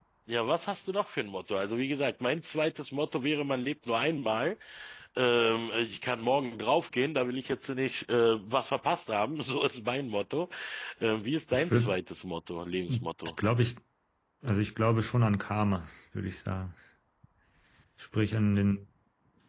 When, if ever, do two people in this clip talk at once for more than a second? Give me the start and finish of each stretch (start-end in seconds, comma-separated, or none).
none